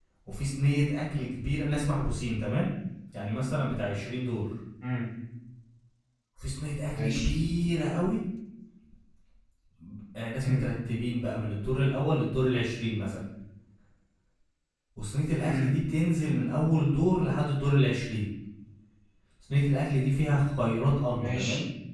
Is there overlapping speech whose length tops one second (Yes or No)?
No